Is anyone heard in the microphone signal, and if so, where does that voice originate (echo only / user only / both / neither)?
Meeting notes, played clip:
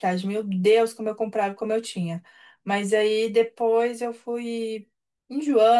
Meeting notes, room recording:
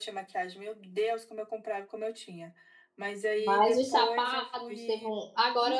both